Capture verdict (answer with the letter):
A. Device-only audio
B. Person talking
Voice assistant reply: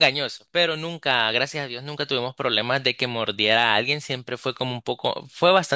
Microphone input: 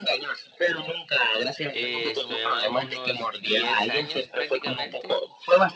B